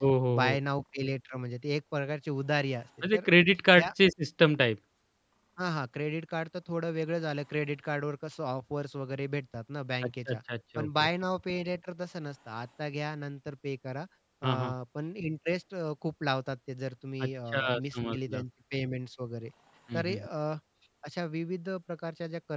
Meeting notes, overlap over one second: present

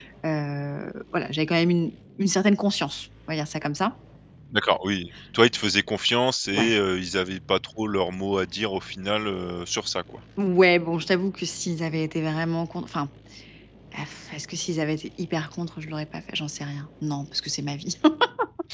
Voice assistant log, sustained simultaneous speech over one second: none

